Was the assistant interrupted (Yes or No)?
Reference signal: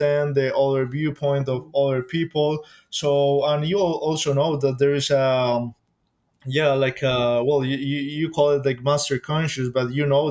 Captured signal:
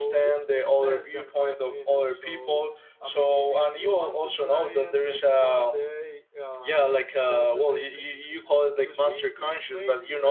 Yes